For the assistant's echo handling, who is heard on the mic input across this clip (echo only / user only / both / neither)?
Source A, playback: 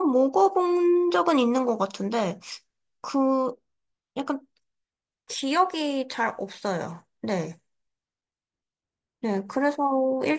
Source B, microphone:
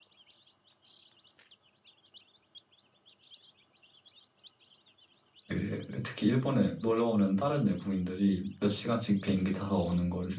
user only